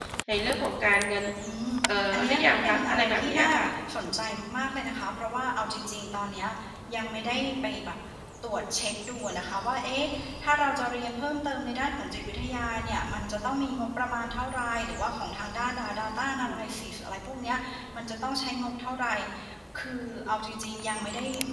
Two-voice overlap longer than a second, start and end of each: 2.1-3.5

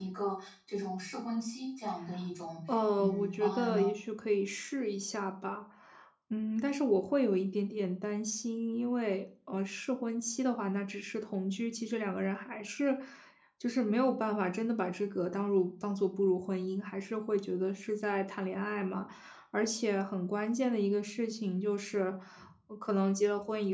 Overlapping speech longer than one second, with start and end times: 2.7-3.9

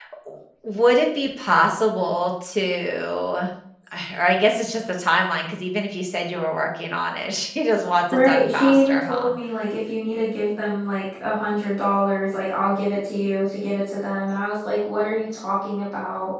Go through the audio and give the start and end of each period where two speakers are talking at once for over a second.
8.1-9.3

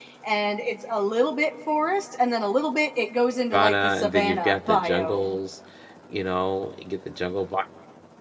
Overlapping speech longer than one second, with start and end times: 3.5-5.3

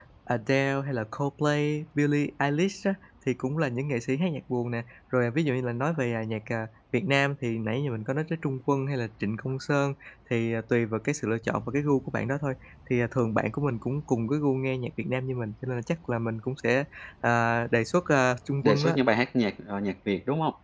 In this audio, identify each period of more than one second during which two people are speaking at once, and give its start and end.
none

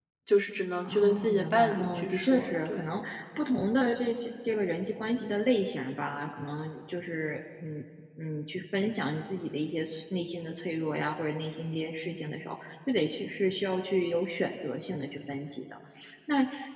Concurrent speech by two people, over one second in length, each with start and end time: 0.8-2.9

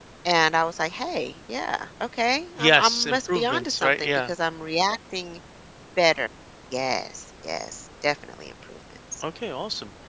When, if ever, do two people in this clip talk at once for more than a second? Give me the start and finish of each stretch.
2.6-4.3

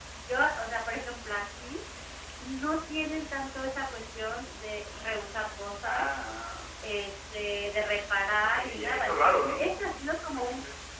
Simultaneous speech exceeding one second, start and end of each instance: 8.4-9.7

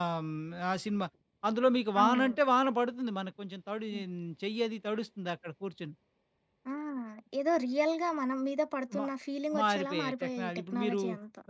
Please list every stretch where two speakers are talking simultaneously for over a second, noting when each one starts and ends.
9.6-11.0

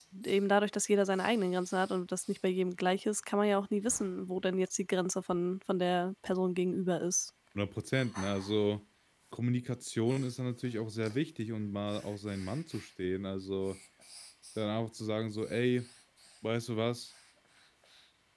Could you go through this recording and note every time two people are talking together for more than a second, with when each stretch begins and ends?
none

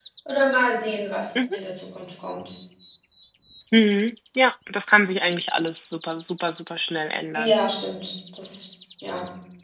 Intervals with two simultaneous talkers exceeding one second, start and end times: none

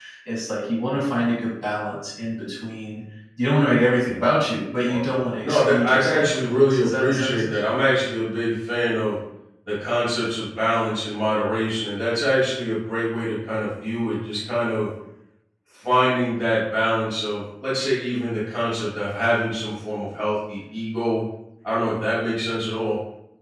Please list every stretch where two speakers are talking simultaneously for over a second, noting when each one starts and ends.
5.4-7.6

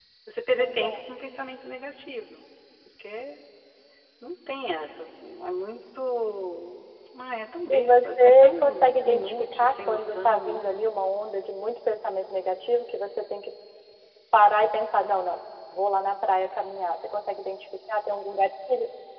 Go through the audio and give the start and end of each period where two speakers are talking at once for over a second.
7.7-10.8

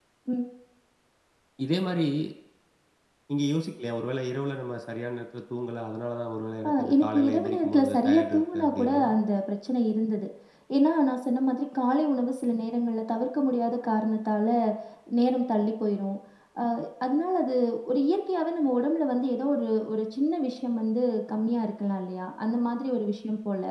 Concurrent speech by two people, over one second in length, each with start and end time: 6.7-9.0

